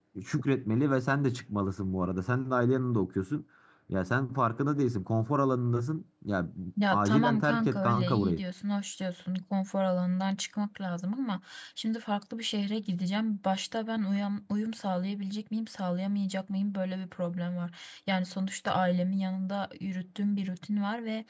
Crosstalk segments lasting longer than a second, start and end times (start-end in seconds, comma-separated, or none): 6.9-8.4